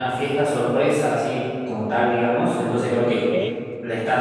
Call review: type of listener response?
listening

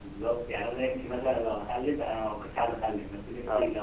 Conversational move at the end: listening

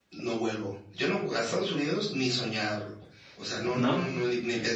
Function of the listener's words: listening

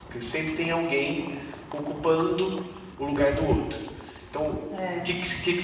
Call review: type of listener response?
listening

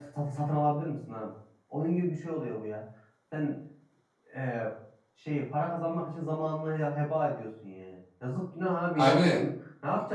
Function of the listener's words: listening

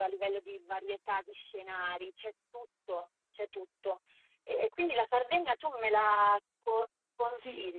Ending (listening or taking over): taking over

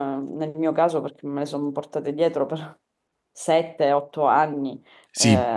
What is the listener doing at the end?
listening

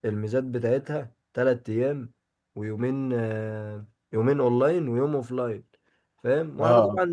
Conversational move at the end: listening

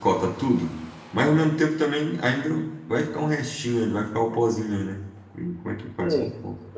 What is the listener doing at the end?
taking over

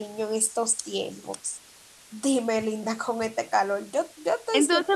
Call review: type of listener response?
taking over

